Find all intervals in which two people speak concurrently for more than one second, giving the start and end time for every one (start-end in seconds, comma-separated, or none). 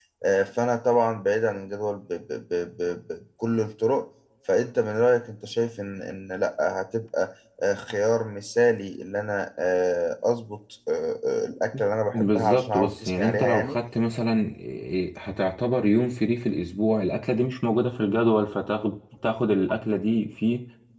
12.1-13.8